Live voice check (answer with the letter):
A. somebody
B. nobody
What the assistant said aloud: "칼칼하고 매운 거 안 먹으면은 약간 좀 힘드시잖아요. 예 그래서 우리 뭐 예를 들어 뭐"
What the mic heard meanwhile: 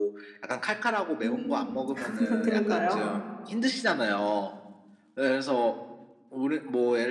A